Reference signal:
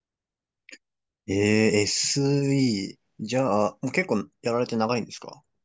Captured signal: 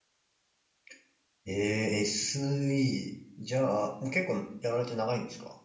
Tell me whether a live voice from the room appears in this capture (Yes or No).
No